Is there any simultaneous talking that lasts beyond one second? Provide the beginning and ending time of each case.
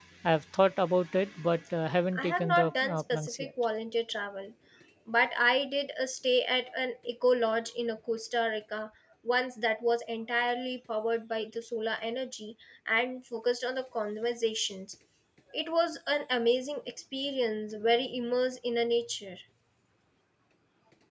2.2-3.5

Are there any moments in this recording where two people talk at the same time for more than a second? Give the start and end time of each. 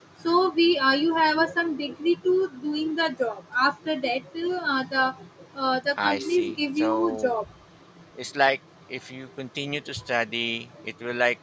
6.0-7.3

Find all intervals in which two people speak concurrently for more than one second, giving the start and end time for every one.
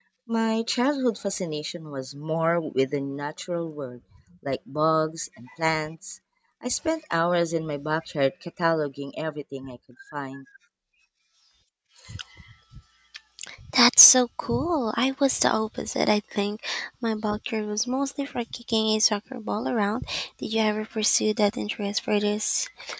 none

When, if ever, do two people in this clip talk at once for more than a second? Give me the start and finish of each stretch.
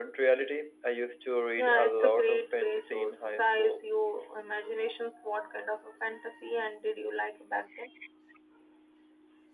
1.6-3.8

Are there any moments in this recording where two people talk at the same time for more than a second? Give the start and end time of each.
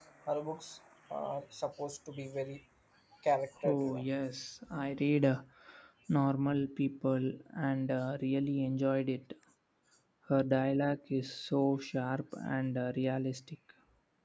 none

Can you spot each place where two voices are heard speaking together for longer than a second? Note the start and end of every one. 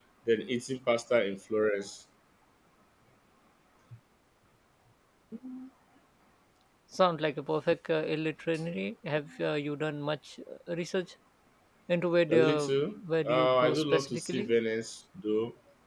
12.3-14.5

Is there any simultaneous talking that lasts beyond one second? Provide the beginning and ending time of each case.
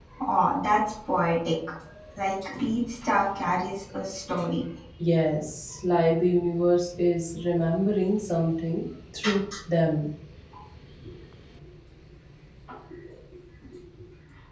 none

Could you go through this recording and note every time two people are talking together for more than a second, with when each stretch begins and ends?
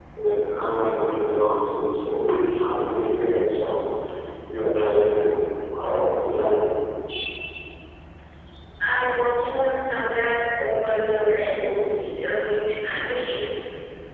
none

